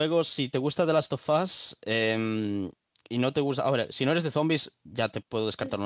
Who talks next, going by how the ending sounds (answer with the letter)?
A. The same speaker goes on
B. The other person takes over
B